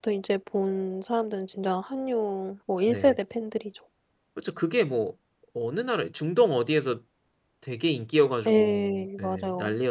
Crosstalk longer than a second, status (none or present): present